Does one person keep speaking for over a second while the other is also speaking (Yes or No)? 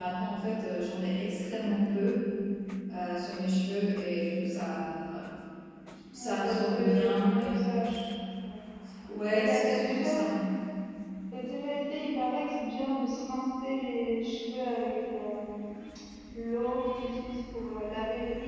Yes